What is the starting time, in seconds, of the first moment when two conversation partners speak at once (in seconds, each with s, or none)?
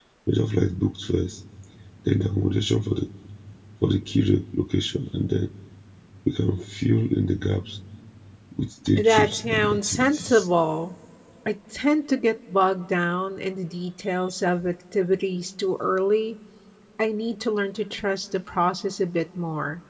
9.0 s